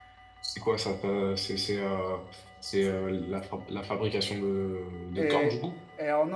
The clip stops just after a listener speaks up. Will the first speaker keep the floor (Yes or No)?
No